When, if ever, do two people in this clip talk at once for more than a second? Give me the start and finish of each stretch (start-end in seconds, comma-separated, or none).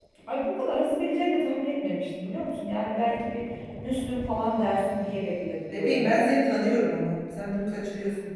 none